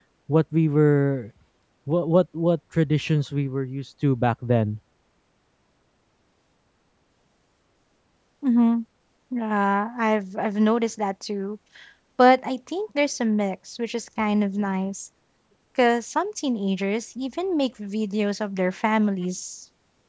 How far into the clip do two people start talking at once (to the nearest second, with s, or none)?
none